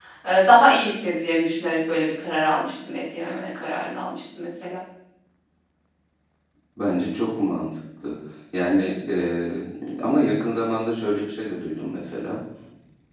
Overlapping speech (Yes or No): No